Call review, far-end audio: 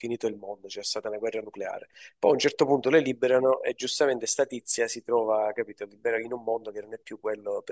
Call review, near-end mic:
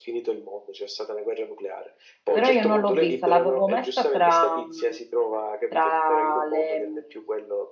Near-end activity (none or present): present